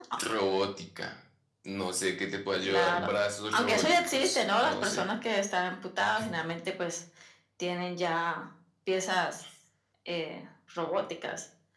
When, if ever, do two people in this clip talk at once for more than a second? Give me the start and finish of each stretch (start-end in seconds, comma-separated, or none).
3.5-5.0